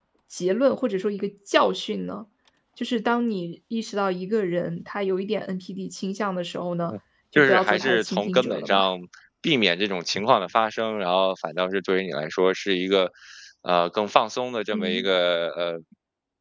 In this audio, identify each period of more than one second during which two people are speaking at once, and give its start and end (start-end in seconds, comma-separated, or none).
7.3-8.9